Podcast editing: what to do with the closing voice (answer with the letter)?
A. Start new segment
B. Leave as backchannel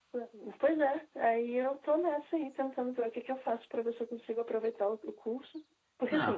A